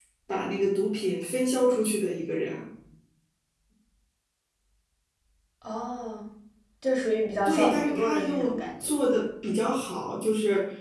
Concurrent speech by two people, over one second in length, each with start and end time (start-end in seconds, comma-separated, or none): 7.4-8.9